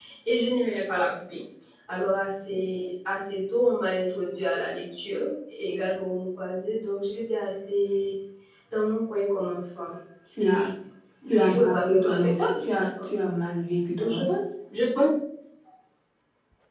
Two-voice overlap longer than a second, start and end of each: 11.3-13.1

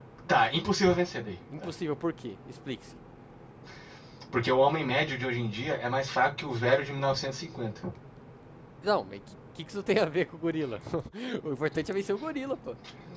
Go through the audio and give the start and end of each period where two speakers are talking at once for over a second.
none

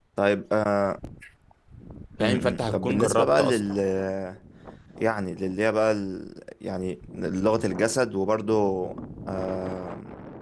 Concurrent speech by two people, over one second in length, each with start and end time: 2.2-3.6

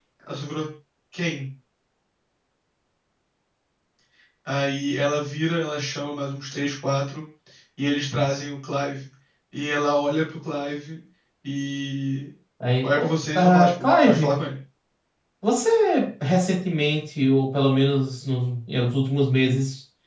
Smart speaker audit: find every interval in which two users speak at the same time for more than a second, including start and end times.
12.8-14.4

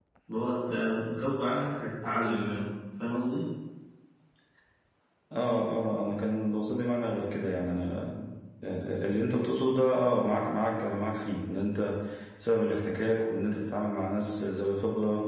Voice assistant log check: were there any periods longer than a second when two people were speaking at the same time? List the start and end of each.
none

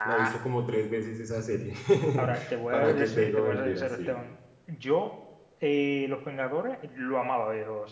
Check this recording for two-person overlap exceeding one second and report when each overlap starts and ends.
2.7-4.1

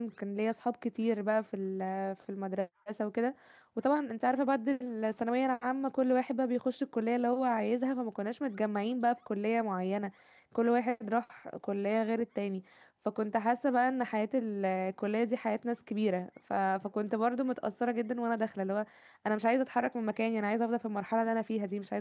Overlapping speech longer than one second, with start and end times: none

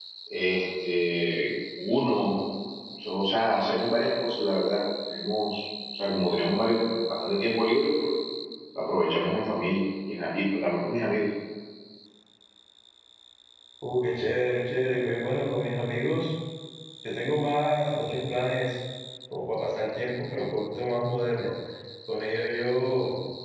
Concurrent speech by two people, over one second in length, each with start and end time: none

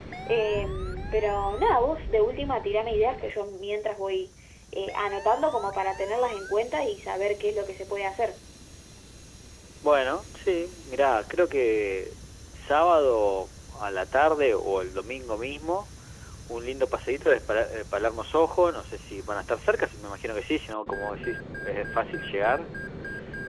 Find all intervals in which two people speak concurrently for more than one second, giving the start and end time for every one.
none

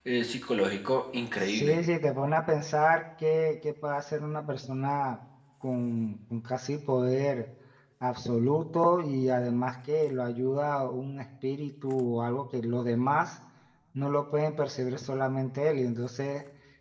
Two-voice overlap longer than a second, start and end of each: none

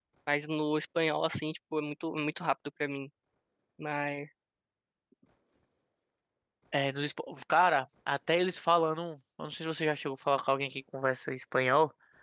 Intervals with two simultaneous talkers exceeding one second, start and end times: none

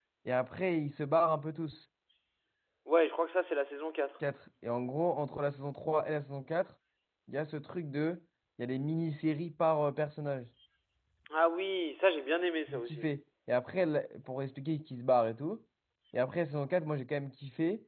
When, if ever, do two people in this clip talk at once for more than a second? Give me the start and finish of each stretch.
none

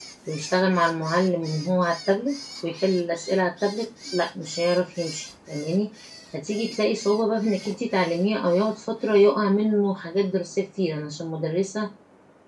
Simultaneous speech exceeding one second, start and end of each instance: none

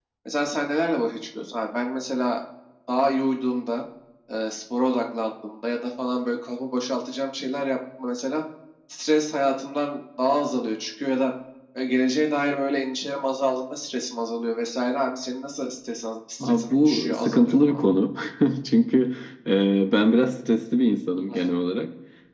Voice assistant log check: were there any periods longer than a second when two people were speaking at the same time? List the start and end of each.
16.4-17.8

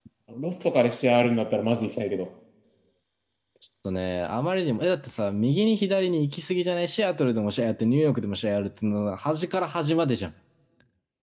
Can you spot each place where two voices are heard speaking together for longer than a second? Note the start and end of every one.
none

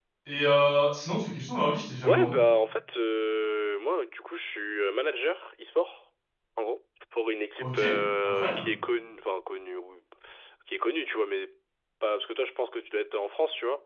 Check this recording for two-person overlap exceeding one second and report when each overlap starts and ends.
none

